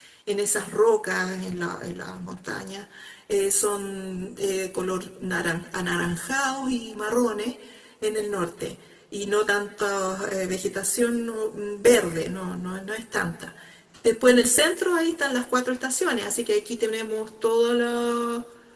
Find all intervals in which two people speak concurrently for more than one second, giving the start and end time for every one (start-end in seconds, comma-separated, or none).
none